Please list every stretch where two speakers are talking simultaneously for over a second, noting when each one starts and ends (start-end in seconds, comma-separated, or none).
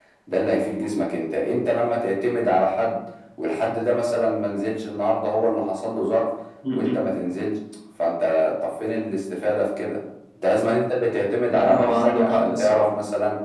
11.5-12.9